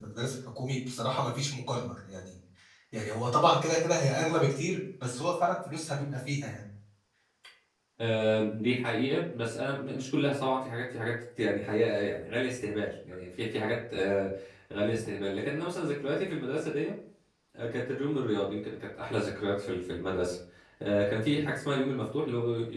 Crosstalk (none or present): none